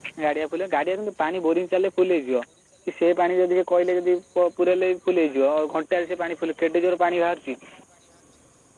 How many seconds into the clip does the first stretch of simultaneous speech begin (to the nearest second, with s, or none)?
none